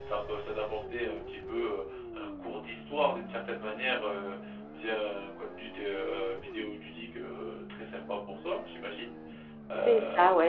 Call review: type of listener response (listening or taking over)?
taking over